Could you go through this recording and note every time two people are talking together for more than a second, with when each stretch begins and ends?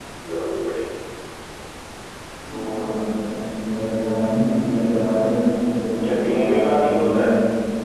6.0-7.3

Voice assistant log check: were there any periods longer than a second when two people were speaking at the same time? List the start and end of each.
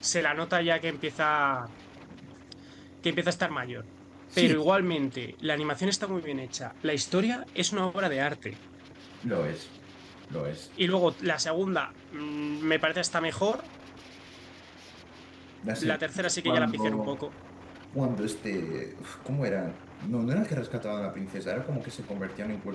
15.9-17.2

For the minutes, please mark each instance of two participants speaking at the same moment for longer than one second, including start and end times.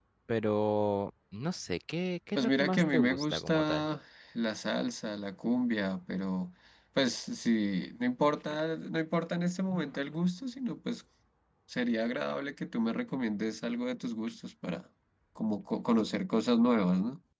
2.4-3.9

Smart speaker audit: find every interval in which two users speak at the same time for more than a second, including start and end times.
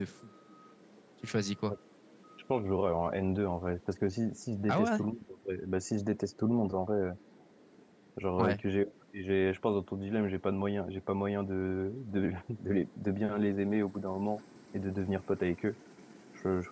none

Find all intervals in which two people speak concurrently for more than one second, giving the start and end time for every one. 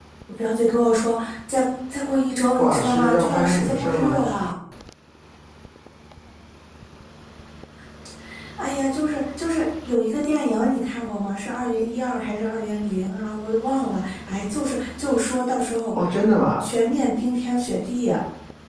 2.6-4.2

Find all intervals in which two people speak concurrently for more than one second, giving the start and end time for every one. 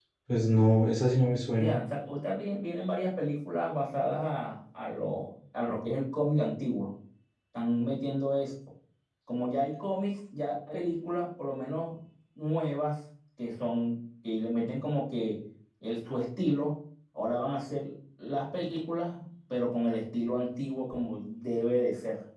none

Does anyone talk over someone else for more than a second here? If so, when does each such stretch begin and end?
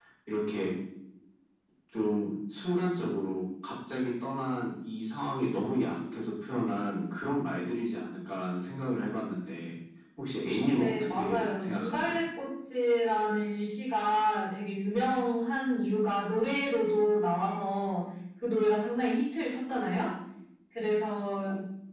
10.8-12.2

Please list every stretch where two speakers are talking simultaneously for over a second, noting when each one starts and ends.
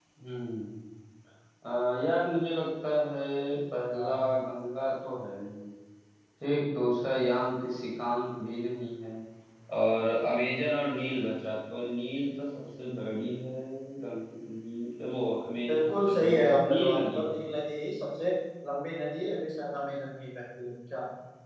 15.7-17.6

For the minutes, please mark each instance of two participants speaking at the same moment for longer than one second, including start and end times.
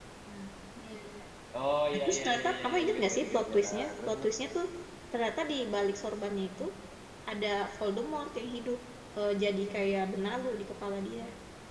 1.9-4.3

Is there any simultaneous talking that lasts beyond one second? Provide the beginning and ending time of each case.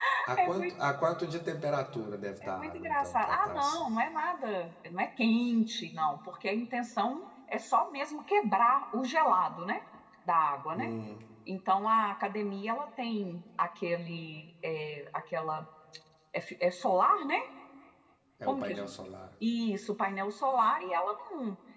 2.4-3.9

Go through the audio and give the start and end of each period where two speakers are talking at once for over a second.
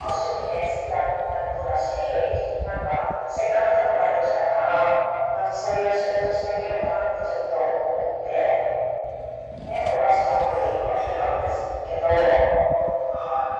10.2-11.5

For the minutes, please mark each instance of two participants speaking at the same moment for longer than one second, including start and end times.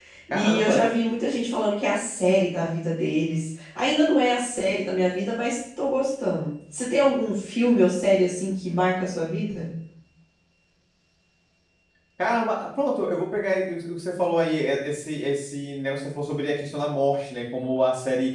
none

